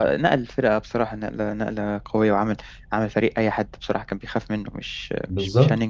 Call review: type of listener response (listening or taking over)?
taking over